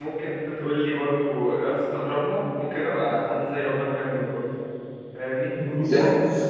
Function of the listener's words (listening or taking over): taking over